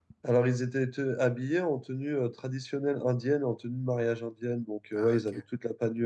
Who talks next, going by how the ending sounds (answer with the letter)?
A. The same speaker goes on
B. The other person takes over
A